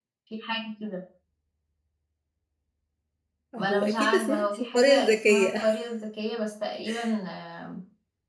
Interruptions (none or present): present